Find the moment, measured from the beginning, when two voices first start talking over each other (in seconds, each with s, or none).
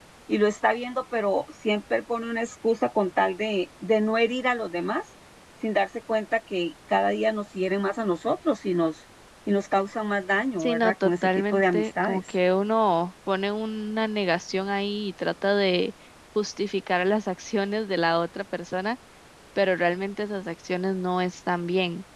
10.6 s